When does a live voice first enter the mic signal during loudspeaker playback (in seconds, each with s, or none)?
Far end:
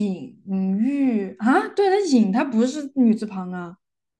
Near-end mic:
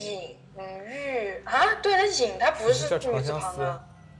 2.5 s